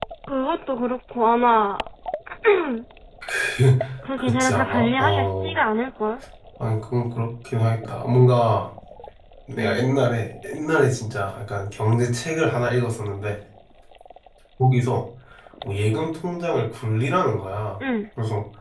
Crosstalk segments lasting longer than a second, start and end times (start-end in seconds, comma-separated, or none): 4.2-5.5